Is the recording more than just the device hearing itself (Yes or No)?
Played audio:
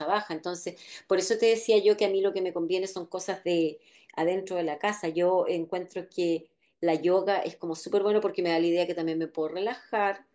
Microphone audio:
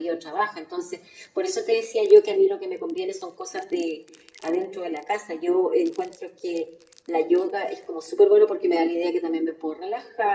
No